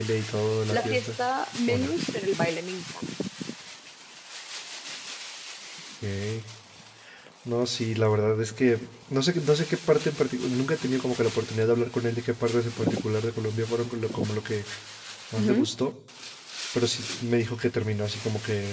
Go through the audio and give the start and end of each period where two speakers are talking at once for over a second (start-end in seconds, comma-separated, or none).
none